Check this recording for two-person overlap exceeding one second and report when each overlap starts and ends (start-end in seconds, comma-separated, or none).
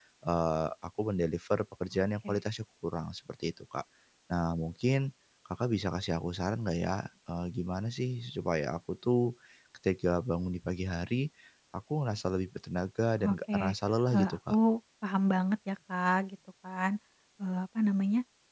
none